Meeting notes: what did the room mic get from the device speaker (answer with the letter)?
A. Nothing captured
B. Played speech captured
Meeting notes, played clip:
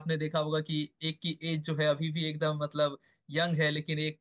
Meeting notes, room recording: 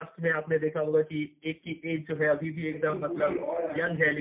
B